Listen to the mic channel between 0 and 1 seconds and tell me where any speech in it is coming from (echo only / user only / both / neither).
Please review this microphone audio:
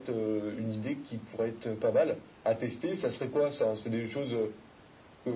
echo only